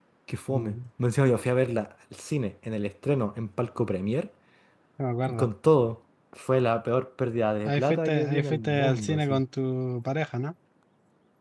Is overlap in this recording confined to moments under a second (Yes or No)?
No